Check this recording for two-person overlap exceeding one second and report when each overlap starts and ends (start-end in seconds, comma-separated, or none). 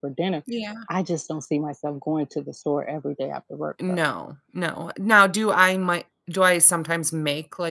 none